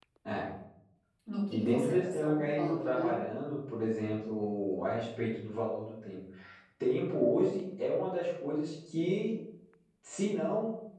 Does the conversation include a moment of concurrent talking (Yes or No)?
Yes